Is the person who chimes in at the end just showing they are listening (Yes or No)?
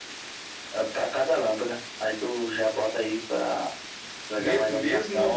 No